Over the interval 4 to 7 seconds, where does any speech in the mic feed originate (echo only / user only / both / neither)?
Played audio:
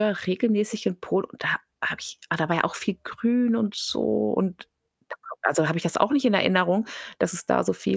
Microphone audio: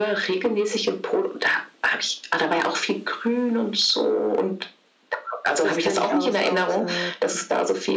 both